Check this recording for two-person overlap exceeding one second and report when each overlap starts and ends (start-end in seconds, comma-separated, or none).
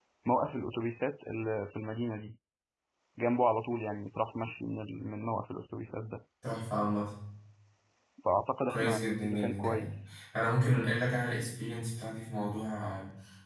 8.7-9.9